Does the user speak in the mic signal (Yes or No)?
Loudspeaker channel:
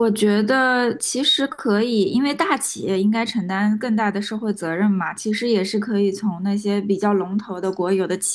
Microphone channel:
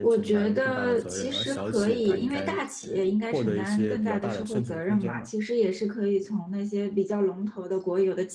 Yes